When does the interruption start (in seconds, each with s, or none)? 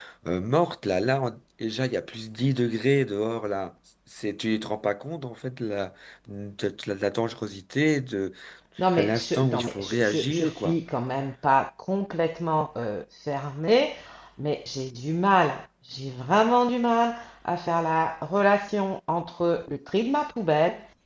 8.9 s